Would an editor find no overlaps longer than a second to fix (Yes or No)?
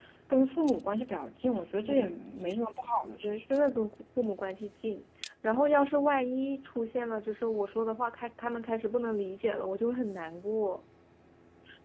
Yes